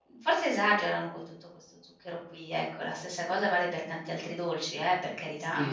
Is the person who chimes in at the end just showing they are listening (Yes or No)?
No